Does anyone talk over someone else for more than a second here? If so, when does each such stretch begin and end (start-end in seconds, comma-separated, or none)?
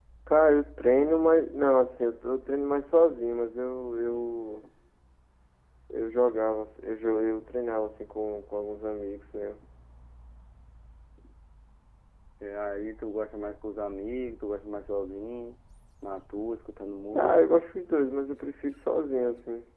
none